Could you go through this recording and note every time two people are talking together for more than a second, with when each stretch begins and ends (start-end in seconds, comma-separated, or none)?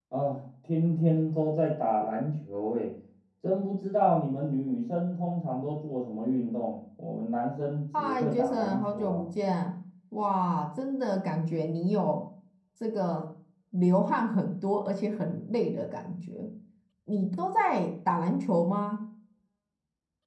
8.0-9.2